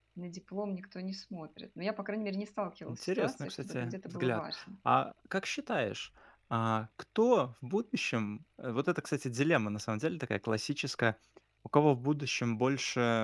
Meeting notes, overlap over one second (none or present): present